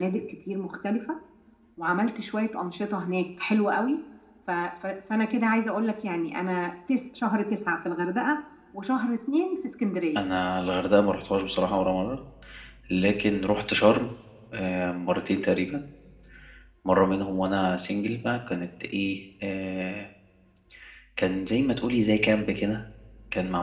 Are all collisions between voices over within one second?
Yes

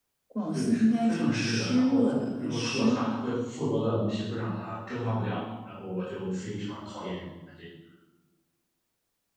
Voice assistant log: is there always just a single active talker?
No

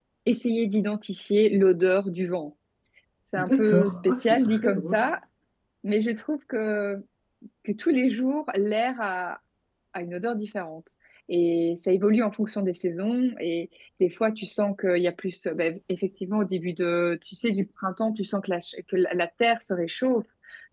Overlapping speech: Yes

